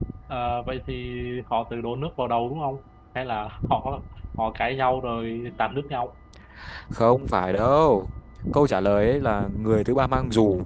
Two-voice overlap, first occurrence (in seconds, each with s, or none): none